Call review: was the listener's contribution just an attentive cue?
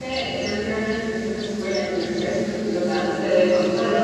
No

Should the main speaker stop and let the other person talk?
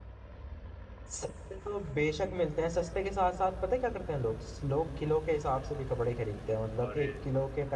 No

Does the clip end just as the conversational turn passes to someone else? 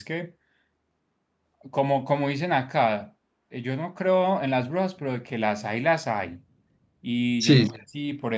No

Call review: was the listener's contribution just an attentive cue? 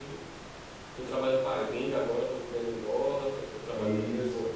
Yes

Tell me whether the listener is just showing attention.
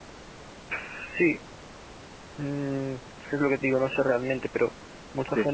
Yes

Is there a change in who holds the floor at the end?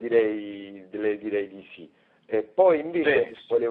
No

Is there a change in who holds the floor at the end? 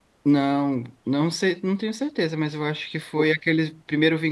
No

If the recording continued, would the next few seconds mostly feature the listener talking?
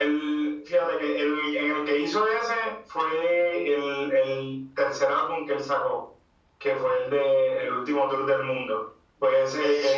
No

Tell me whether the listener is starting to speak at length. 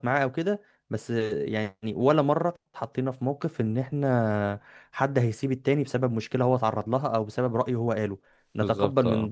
No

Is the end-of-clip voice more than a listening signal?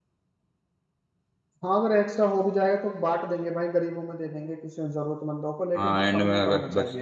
Yes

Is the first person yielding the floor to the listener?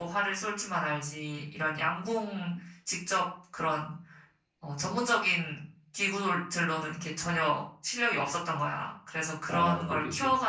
No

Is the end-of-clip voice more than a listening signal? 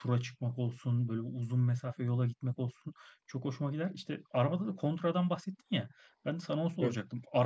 No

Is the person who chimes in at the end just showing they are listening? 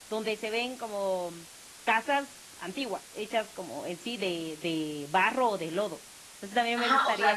No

